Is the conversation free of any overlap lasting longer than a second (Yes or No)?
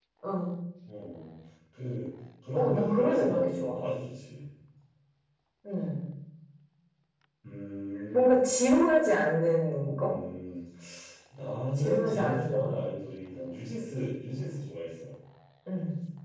No